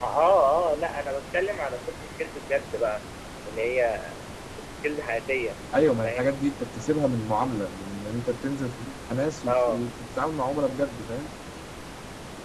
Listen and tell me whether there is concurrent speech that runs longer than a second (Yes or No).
No